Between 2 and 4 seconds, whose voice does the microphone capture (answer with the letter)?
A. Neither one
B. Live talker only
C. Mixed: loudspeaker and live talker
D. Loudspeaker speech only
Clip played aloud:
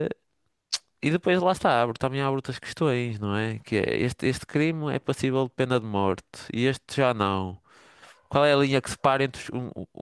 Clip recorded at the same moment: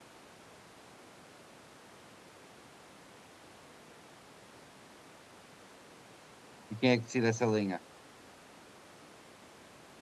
A